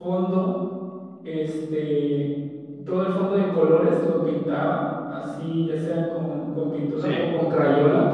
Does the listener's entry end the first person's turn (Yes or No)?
No